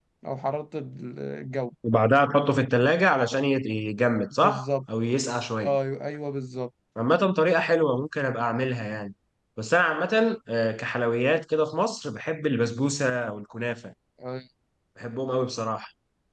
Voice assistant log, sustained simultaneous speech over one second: none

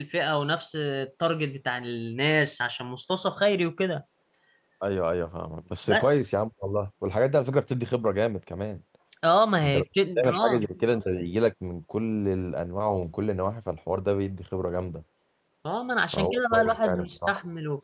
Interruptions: present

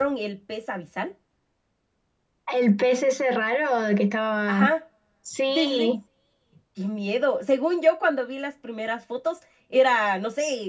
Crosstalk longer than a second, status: none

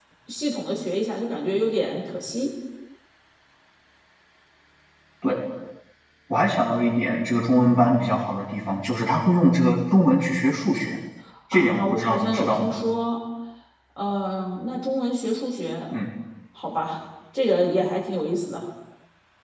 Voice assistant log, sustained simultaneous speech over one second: present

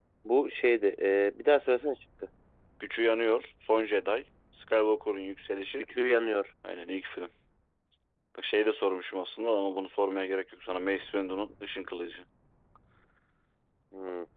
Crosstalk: none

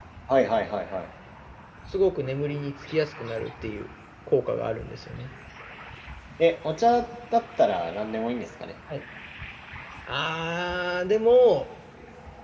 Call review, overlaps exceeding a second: none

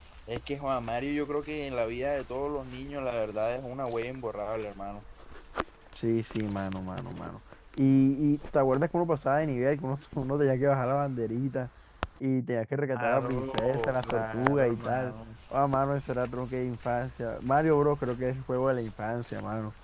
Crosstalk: present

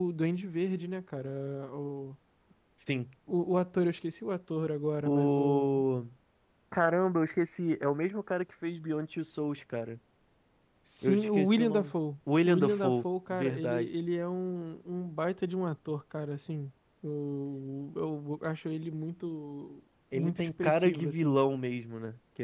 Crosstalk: present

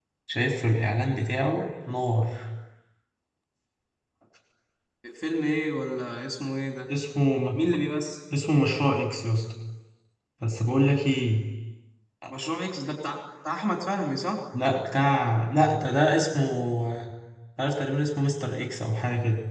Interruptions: none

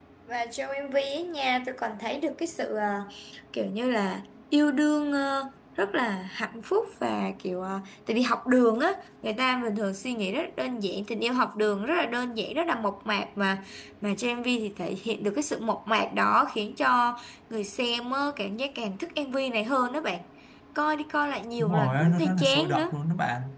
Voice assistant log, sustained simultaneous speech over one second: present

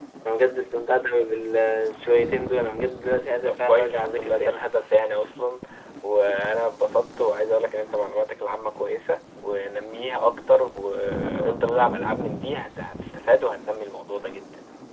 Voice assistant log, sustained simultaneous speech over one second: present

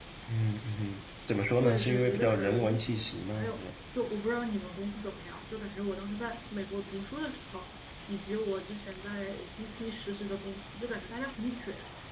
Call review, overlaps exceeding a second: present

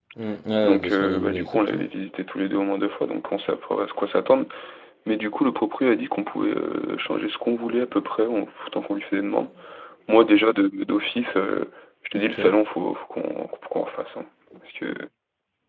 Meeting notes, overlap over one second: present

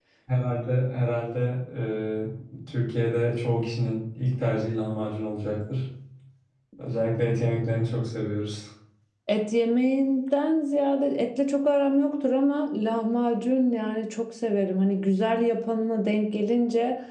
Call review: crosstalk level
none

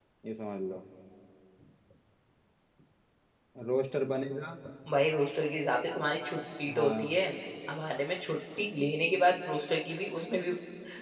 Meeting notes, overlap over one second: none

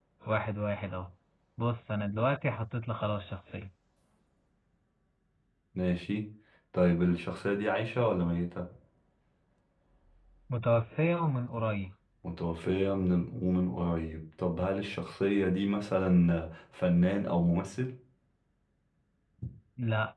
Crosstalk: none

